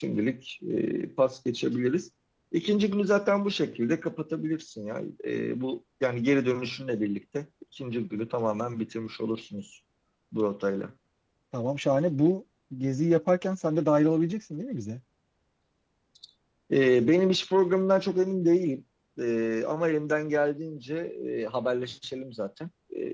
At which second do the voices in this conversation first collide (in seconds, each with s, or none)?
none